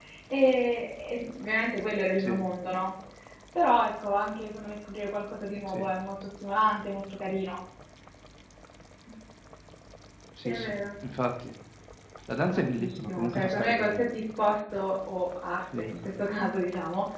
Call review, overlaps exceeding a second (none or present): present